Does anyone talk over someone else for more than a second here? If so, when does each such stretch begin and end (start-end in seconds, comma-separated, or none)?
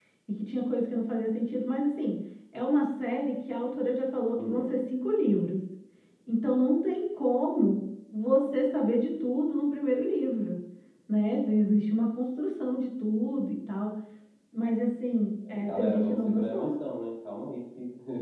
15.5-16.8